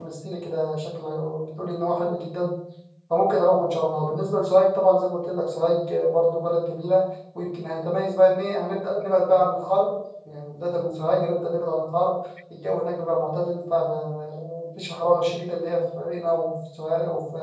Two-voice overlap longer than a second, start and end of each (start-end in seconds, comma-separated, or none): none